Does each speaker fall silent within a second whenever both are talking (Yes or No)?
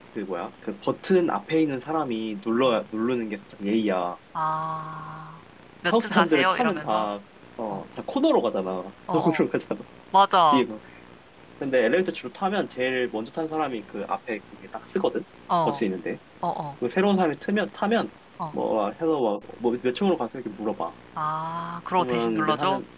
No